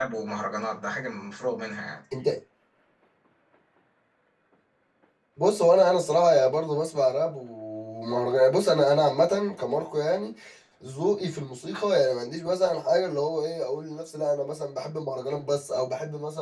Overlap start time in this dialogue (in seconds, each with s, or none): none